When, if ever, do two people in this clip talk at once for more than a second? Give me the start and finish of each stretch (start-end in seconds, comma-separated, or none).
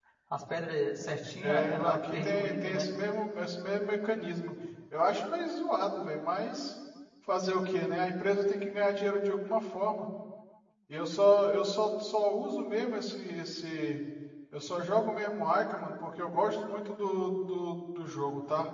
1.4-2.9